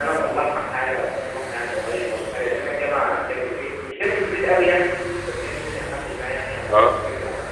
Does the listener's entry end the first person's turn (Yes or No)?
No